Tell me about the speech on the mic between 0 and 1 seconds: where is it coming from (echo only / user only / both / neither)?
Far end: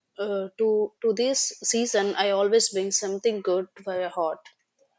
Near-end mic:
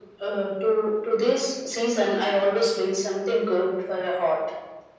echo only